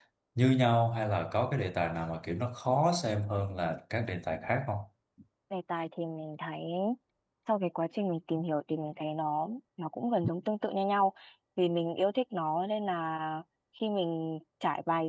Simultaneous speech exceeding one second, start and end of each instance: none

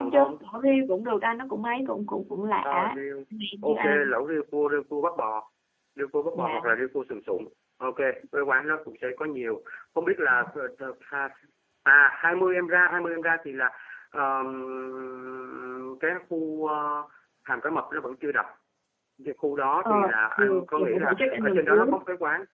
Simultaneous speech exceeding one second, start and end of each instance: 20.4-21.9

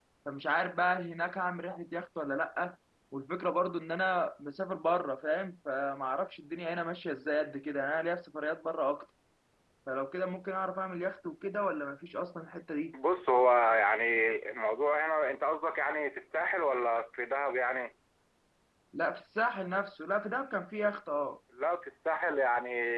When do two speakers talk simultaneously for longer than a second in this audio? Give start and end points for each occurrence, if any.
none

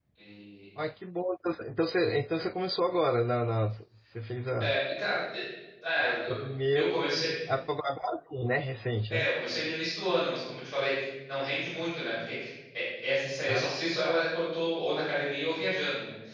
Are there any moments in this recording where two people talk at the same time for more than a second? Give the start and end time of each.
none

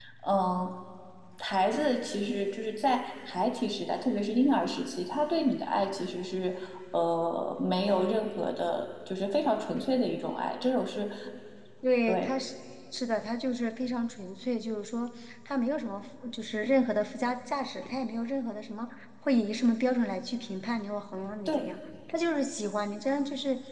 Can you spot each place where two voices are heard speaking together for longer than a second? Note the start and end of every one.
none

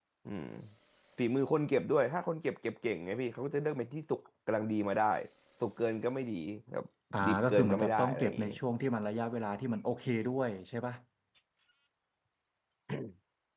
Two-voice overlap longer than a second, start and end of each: 7.2-8.5

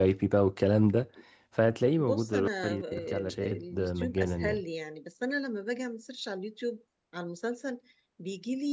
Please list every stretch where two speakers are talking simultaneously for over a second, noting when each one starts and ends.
2.0-4.6

